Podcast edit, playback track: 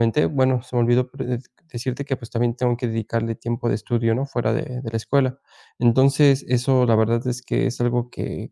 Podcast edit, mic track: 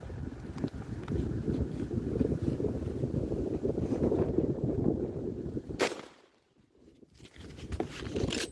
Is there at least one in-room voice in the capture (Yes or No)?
No